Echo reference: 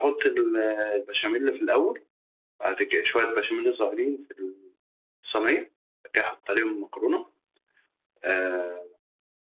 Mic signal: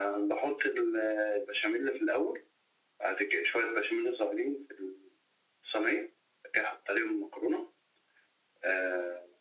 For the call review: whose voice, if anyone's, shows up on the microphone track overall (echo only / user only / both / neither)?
echo only